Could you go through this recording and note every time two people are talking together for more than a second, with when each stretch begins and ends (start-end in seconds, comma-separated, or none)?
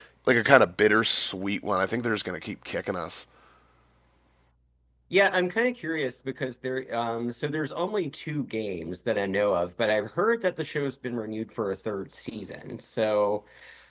none